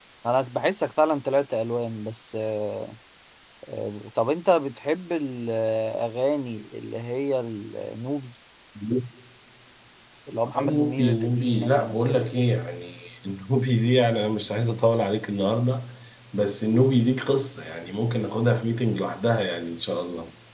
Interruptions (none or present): present